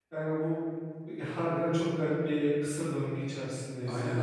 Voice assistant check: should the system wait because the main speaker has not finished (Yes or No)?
No